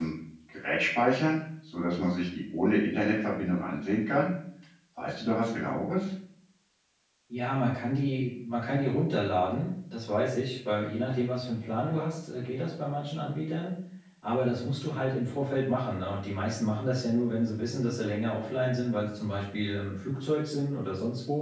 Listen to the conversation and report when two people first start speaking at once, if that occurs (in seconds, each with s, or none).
none